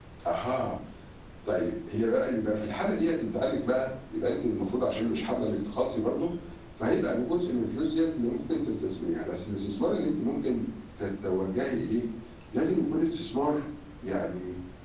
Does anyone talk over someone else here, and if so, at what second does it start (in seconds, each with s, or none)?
none